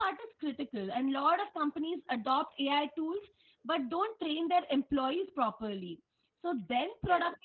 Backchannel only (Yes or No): Yes